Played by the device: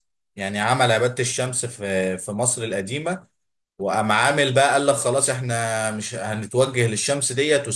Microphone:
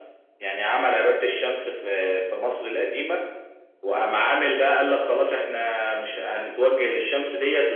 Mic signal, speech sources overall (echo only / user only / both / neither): echo only